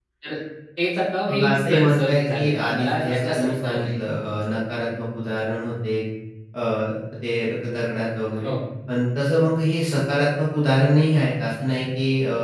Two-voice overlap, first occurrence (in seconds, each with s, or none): 1.3 s